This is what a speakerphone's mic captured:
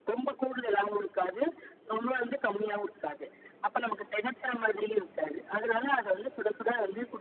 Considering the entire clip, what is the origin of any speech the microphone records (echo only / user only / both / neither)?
echo only